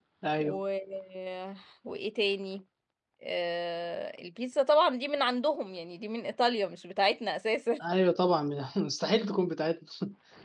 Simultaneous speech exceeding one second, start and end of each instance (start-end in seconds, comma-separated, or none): none